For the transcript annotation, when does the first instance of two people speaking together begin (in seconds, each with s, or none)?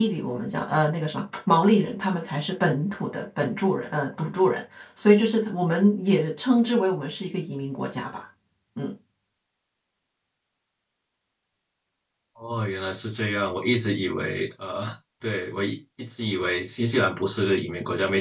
none